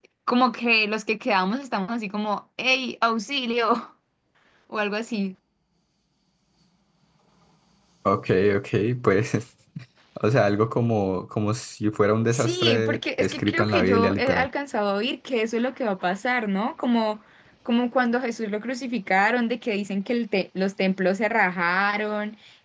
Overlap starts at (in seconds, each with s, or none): 12.3 s